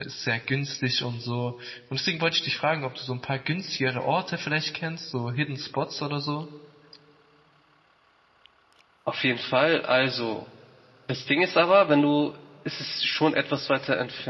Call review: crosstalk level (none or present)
none